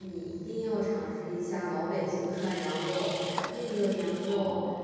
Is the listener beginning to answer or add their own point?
No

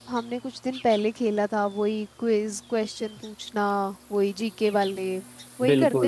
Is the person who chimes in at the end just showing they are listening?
No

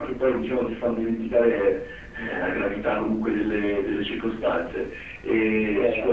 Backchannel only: Yes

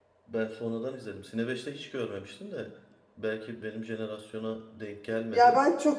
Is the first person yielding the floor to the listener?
Yes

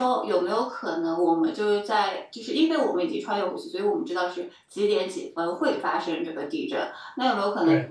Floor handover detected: No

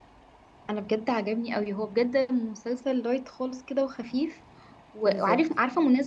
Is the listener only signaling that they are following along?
Yes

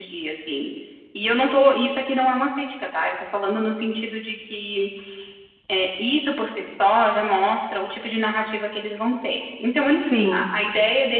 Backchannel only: Yes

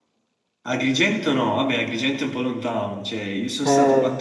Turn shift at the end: No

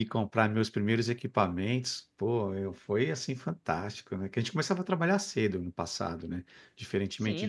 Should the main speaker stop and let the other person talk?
Yes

